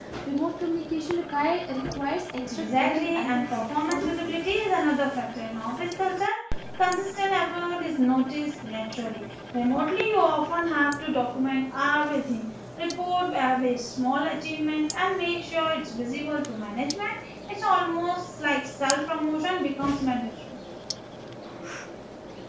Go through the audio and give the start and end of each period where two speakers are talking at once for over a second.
2.5-4.4

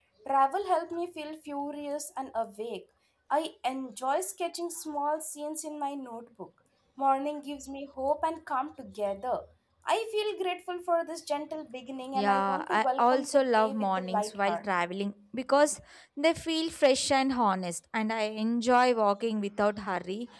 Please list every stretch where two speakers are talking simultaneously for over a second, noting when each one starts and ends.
12.1-14.6

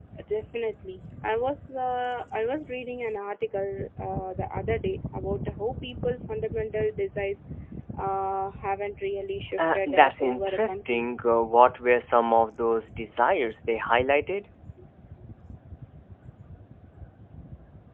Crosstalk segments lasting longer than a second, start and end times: 9.6-11.0

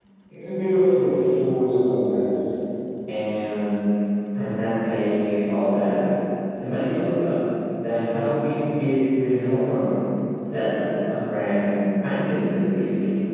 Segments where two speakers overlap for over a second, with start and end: none

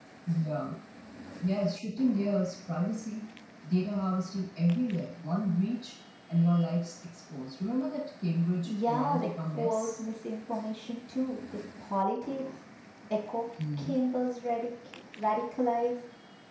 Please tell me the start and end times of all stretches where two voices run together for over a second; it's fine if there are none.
8.7-9.9

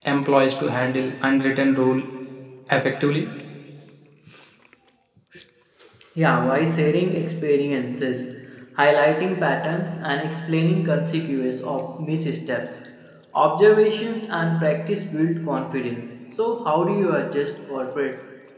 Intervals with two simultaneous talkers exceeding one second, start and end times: none

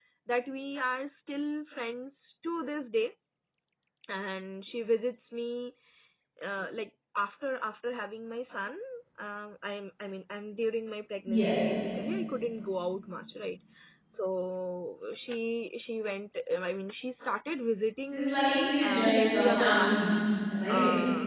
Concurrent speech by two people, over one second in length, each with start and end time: 18.1-20.0

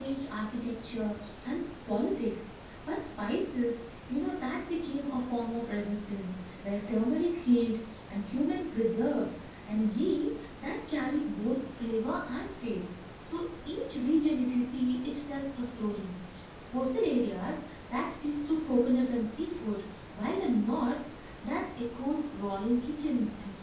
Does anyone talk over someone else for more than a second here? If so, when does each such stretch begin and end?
none

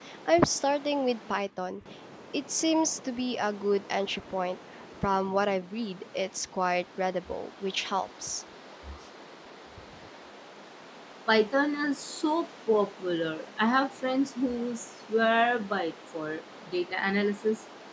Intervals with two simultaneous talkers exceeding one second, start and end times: none

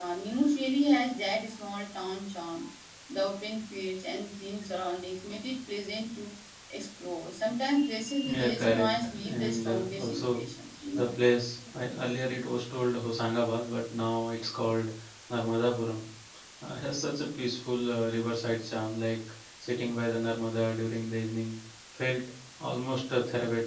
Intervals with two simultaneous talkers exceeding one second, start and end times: 8.2-10.4

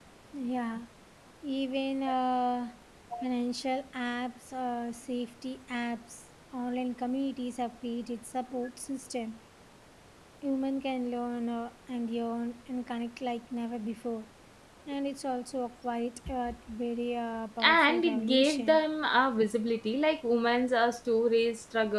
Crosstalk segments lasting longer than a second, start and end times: 17.6-18.8

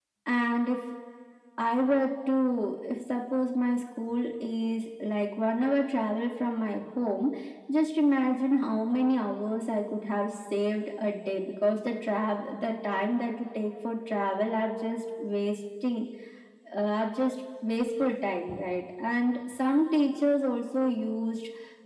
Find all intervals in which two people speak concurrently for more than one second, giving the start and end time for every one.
none

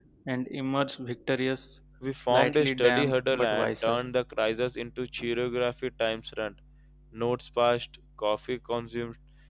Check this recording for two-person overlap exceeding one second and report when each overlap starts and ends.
2.3-4.0

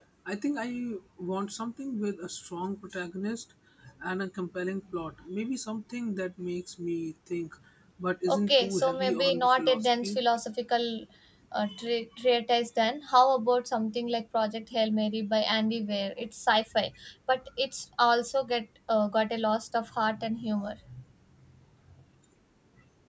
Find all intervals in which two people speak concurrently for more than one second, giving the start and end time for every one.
8.3-10.2

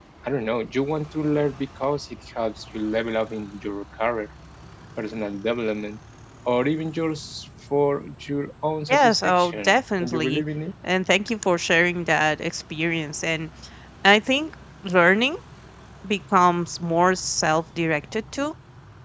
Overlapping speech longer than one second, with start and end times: 8.9-10.4

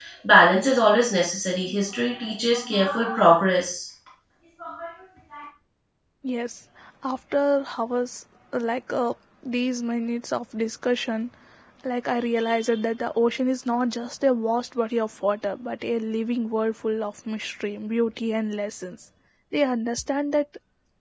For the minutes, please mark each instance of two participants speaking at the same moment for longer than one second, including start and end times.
none

